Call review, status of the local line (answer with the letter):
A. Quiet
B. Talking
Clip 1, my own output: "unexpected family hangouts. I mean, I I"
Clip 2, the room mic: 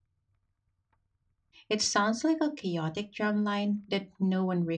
B